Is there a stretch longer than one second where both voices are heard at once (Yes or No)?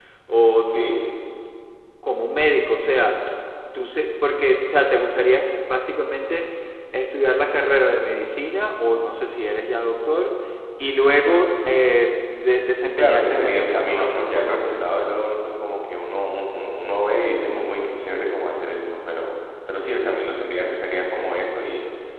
Yes